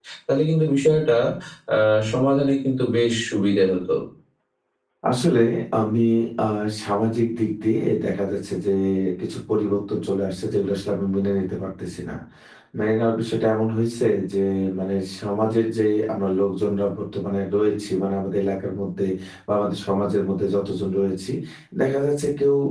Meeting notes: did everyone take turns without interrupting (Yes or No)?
Yes